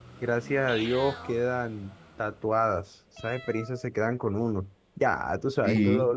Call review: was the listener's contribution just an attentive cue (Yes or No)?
Yes